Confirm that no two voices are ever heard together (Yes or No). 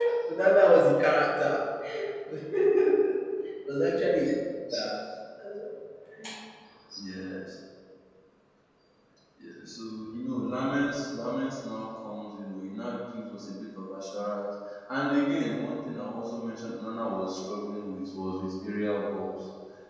Yes